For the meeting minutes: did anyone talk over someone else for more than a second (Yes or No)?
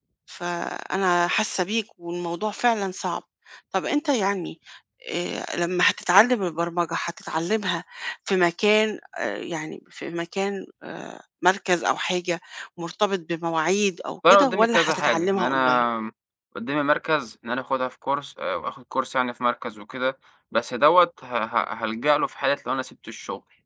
Yes